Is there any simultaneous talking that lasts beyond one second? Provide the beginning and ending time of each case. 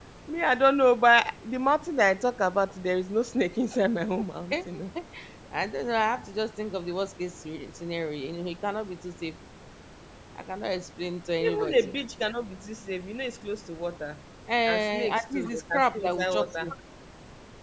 14.7-16.7

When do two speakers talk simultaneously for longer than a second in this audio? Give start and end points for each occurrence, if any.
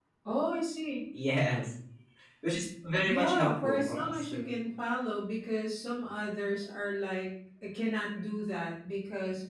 3.0-4.5

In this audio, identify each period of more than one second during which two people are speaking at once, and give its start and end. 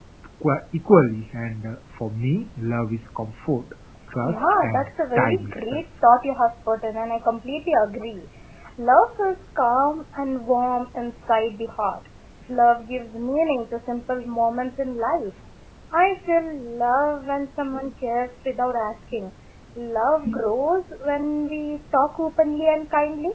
4.3-5.8

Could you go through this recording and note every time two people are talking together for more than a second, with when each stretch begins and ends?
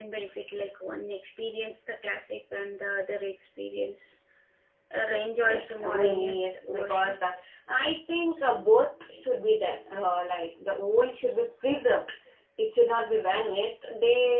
5.4-7.1

